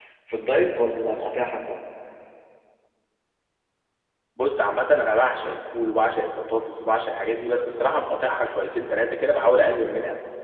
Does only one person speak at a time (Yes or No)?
Yes